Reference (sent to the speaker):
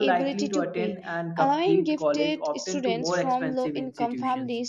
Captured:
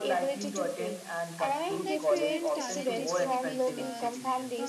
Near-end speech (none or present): present